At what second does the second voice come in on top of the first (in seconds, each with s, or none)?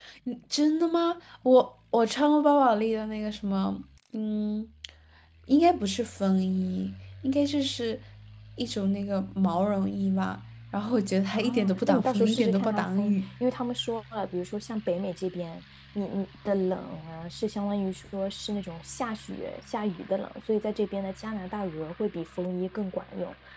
11.3 s